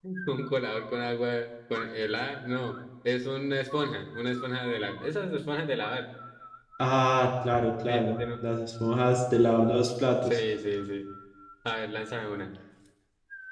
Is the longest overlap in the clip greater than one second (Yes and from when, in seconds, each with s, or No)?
No